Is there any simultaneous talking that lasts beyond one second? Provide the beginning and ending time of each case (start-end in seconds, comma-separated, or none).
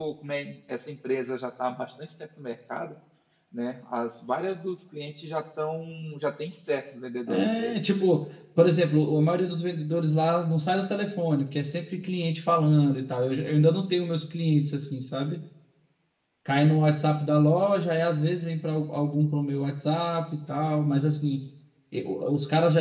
none